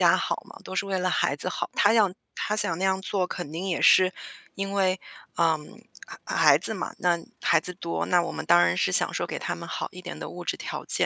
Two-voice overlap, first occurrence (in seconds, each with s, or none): none